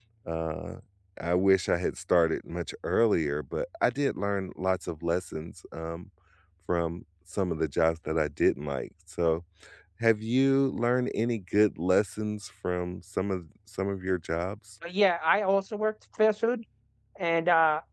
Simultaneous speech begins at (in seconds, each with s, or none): none